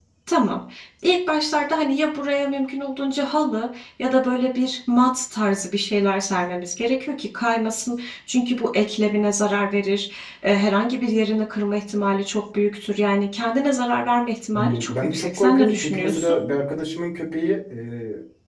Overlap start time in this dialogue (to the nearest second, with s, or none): 15 s